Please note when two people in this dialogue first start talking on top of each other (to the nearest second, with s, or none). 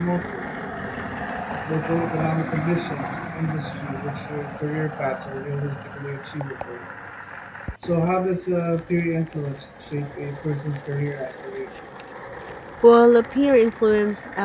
none